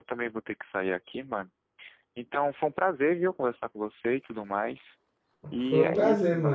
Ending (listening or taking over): taking over